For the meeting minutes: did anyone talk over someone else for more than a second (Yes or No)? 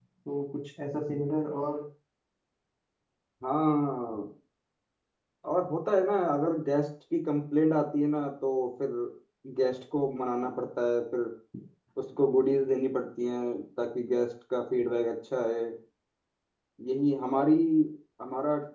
No